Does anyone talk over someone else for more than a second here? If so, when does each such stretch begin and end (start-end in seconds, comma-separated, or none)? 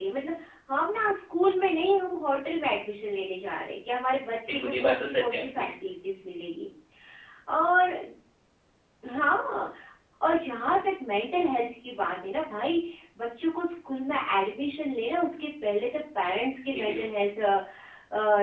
4.5-5.7